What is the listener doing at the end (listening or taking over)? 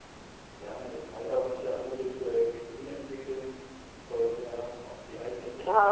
taking over